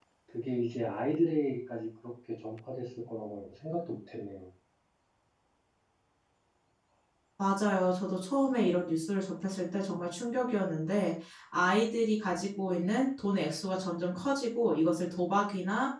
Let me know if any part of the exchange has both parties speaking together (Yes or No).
No